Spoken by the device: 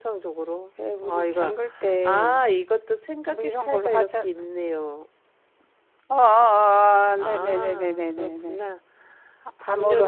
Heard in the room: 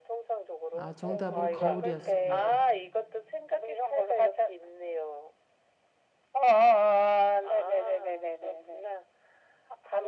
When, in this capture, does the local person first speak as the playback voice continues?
0.7 s

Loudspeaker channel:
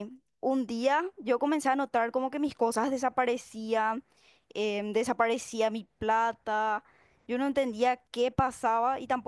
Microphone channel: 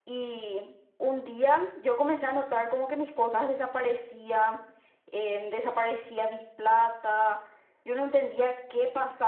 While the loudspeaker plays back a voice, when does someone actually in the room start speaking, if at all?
none

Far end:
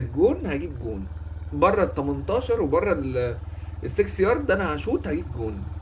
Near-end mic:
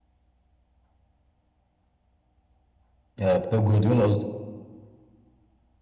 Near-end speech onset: 3.2 s

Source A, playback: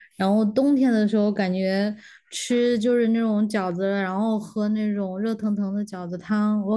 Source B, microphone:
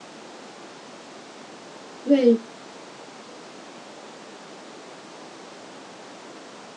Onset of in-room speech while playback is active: 2.0 s

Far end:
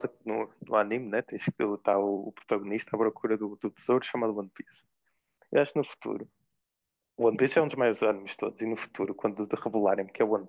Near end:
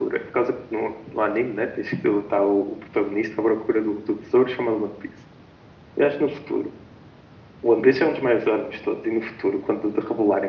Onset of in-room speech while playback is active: none

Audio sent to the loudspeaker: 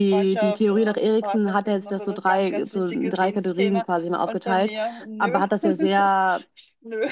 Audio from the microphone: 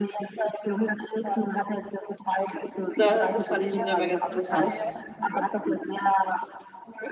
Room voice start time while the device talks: 2.9 s

